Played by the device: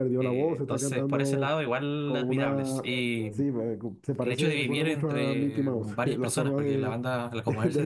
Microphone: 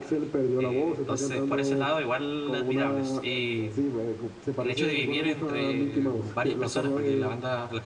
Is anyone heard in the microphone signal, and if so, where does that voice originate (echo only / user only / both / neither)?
echo only